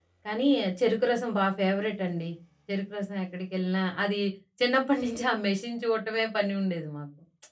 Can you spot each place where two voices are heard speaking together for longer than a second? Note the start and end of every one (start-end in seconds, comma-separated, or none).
none